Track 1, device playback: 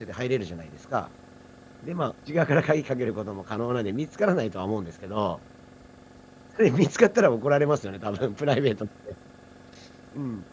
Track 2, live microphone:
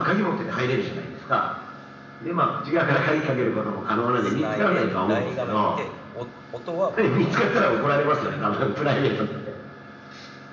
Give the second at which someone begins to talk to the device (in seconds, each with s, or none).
4.2 s